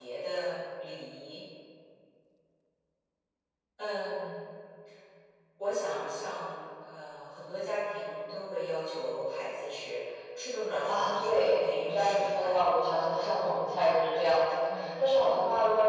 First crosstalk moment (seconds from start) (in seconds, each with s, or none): 10.9 s